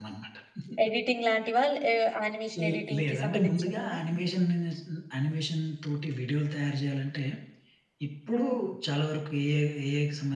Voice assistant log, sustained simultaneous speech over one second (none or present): present